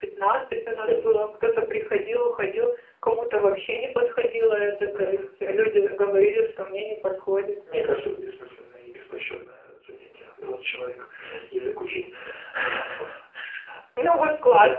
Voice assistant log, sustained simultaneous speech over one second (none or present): none